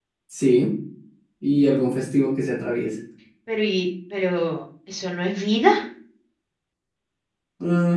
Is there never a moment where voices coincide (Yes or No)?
Yes